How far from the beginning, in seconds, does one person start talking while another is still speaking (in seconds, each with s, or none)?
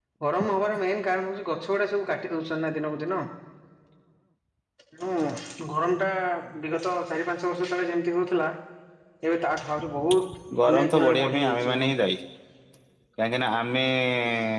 10.5 s